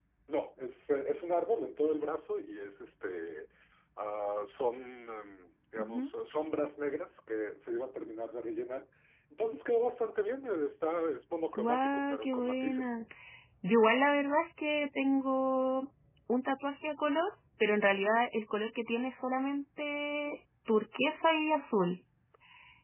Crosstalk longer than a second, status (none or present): present